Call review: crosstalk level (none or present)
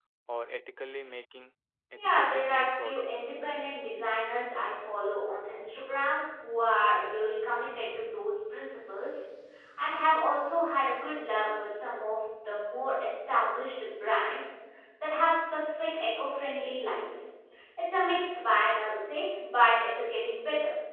present